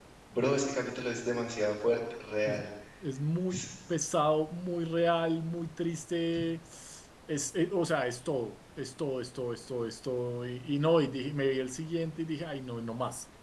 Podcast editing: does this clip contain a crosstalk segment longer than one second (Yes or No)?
No